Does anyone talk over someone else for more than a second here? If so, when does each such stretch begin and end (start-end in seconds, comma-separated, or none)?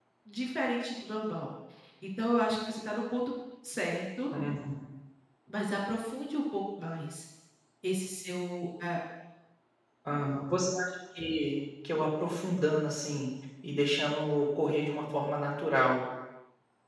none